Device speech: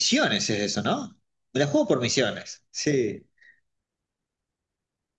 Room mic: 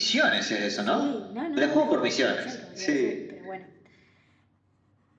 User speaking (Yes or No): Yes